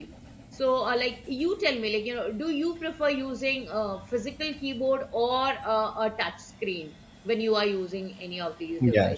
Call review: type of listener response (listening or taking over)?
taking over